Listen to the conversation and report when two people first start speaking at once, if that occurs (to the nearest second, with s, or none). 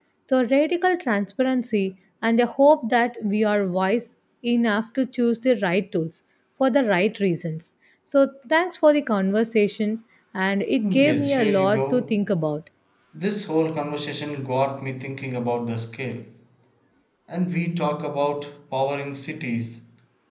11 s